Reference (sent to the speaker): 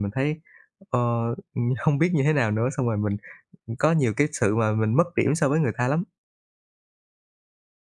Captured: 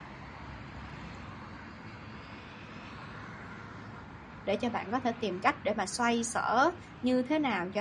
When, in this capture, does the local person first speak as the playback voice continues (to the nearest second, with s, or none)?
4 s